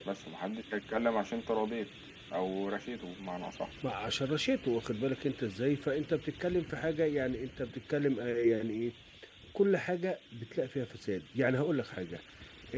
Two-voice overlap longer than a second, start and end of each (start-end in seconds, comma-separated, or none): none